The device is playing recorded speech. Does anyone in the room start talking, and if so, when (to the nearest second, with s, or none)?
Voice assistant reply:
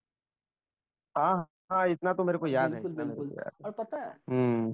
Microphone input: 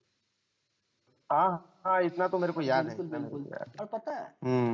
none